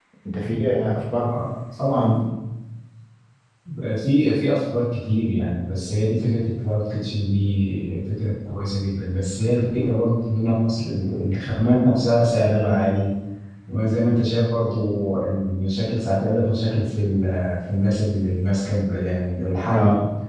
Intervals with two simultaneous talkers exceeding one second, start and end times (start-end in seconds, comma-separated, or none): none